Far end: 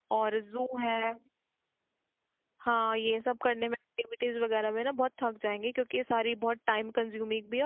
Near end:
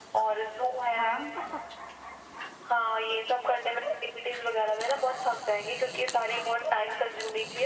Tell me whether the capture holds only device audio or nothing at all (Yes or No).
No